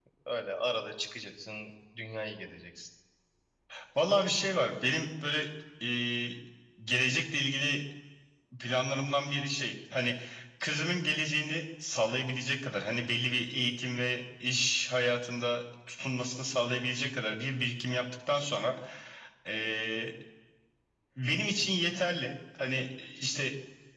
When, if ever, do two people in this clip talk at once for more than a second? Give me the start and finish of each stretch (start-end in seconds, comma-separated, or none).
none